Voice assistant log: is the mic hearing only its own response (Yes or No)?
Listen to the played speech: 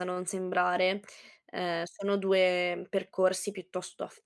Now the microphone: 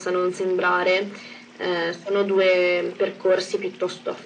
Yes